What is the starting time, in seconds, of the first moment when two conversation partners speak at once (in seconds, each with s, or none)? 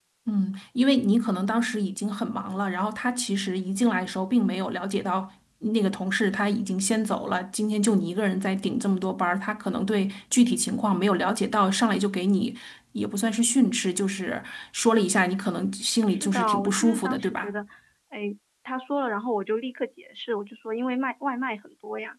16.1 s